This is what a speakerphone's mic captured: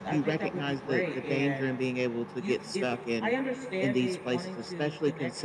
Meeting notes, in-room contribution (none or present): present